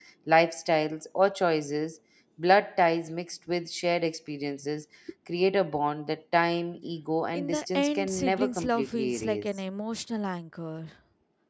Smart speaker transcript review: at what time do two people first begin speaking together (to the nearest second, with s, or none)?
7 s